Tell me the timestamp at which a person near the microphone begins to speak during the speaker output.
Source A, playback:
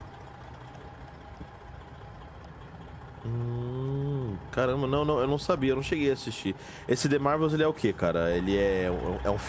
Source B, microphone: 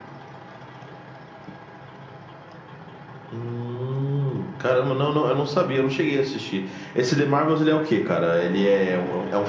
none

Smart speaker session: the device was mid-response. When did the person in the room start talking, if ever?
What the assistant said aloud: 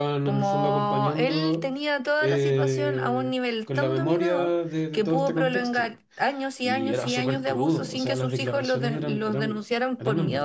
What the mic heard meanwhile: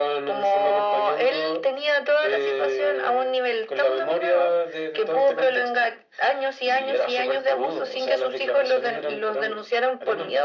none

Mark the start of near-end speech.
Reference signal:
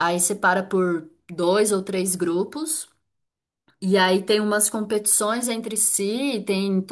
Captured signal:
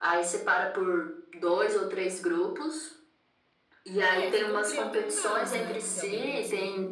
4.0 s

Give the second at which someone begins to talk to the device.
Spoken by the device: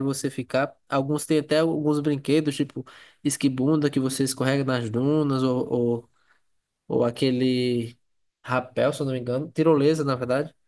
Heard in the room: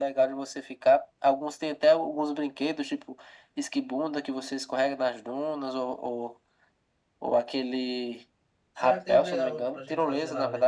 8.7 s

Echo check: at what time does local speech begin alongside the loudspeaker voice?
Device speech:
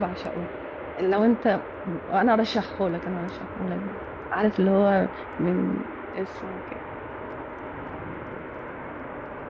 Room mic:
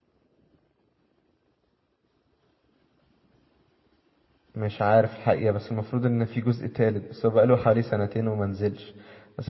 4.5 s

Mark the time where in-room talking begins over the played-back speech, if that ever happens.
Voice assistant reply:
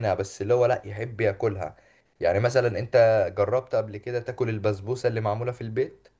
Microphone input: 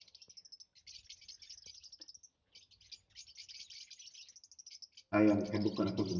5.1 s

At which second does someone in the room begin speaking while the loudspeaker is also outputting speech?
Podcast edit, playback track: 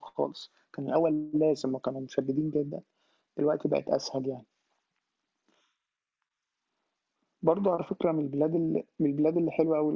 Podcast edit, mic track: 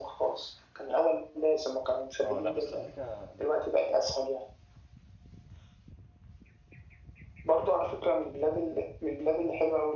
2.2 s

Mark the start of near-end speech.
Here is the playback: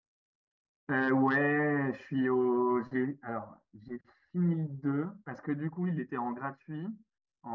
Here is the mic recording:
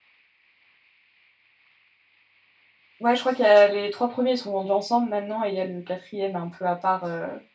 3.0 s

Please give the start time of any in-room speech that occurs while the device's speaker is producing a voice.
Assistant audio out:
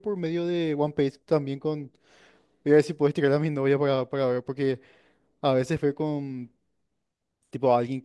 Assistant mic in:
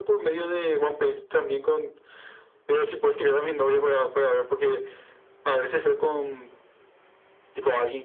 none

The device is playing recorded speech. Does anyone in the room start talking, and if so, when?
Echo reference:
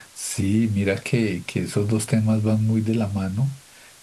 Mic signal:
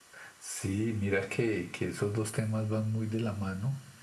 none

